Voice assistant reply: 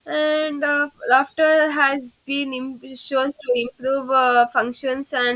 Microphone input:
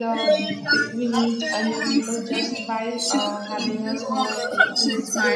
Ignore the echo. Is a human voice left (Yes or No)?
Yes